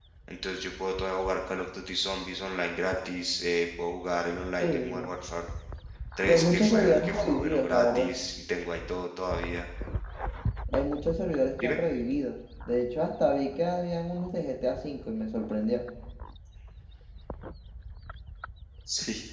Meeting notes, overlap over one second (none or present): present